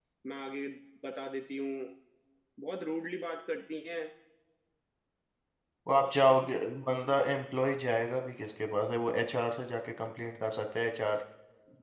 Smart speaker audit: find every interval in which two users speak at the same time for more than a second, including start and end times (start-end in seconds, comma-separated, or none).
none